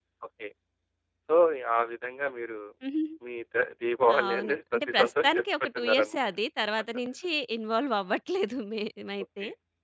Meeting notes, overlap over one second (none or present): present